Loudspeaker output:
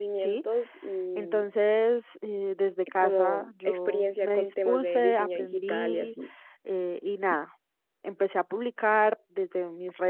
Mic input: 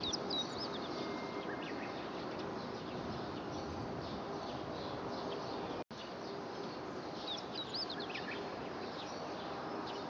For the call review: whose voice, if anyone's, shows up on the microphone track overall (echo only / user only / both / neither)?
neither